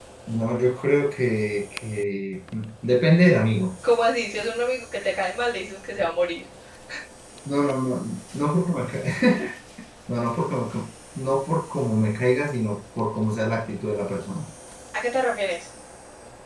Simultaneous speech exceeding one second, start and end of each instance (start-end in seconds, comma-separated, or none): none